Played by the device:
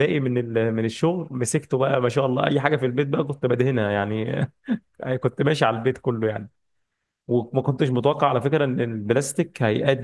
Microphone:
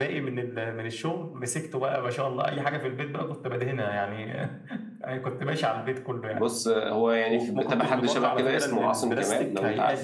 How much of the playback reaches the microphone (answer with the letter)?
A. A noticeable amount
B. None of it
A